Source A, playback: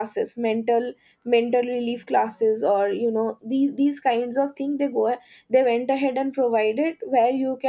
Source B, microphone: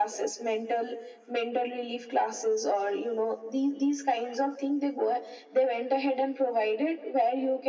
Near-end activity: none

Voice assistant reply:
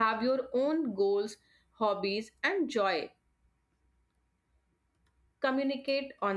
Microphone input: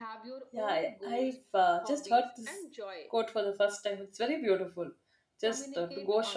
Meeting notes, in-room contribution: present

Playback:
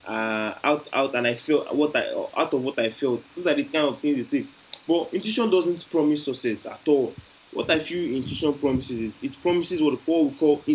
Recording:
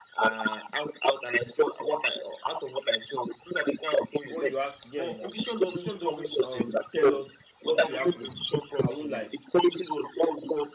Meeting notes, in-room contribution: present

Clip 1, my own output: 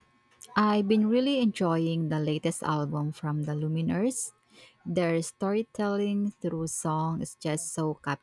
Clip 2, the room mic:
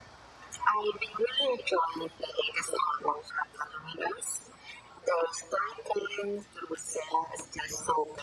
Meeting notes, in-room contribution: none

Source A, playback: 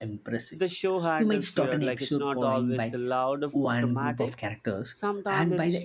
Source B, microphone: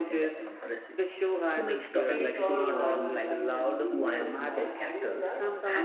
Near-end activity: present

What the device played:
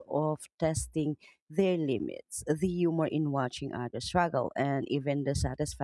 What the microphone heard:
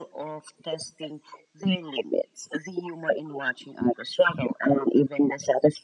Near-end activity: none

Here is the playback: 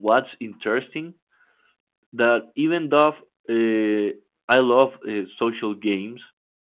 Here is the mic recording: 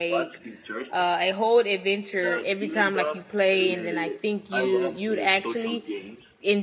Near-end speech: present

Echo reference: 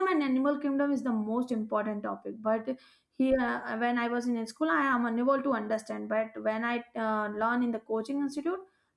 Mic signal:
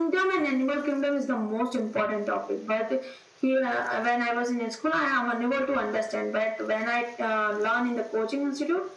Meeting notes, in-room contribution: none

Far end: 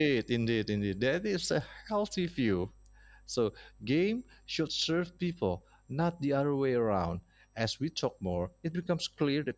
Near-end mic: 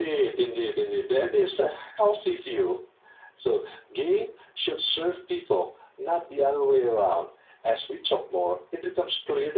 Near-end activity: none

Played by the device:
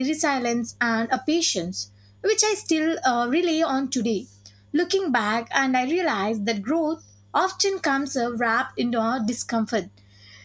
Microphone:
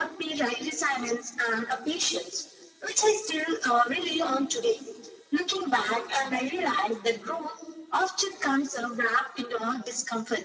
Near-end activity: none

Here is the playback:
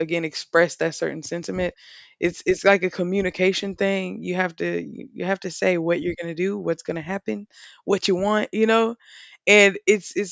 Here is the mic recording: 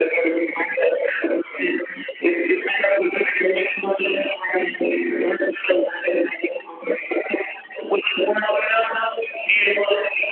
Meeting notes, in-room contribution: none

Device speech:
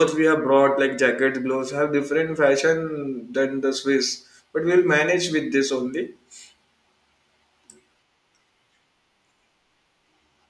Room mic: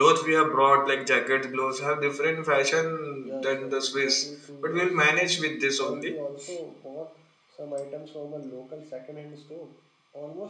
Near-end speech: present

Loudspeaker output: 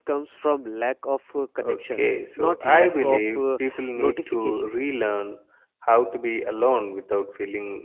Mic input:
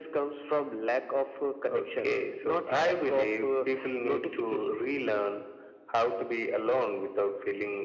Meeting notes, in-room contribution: none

